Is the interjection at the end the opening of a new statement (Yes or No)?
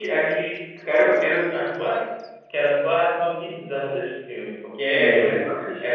Yes